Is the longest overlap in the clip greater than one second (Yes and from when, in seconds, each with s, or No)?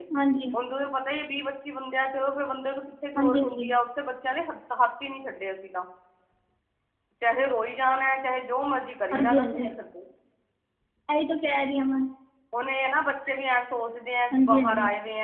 No